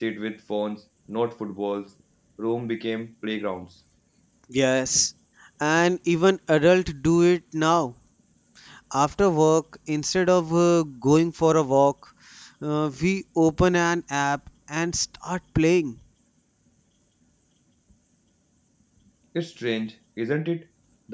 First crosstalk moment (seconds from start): none

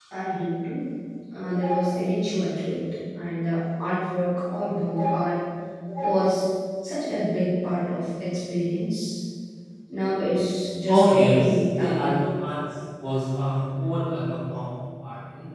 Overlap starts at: 10.9 s

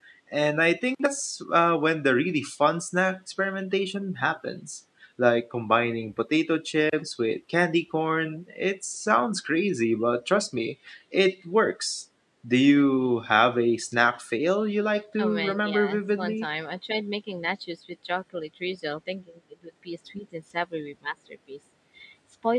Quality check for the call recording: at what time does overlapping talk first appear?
15.2 s

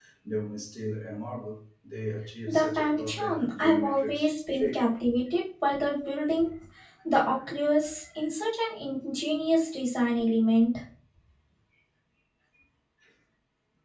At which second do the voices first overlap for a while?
2.5 s

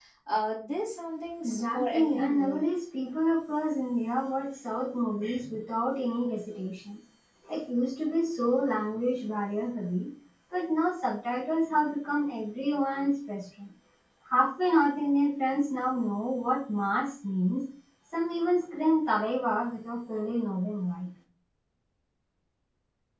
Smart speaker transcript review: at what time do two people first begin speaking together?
1.4 s

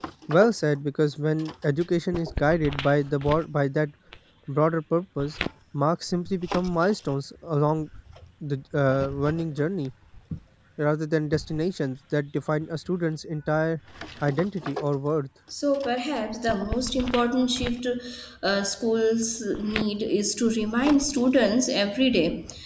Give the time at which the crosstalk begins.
none

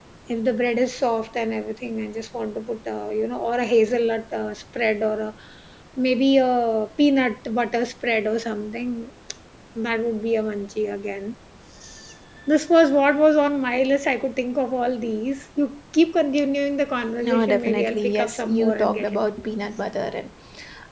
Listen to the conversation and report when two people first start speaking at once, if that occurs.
17.2 s

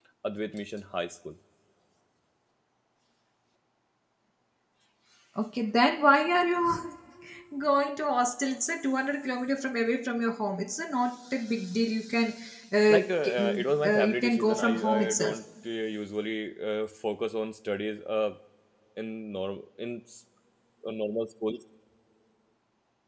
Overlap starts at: 12.9 s

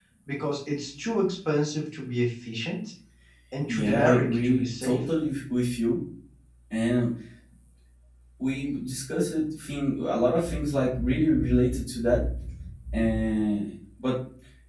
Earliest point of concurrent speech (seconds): 3.7 s

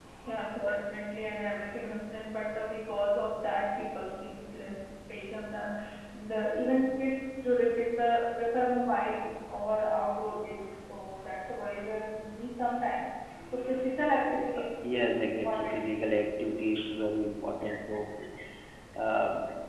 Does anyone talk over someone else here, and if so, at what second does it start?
14.4 s

